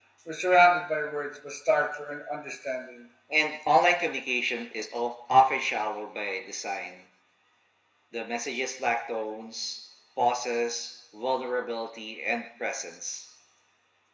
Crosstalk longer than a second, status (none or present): none